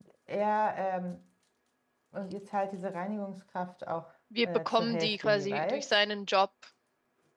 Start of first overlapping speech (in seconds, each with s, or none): 4.3 s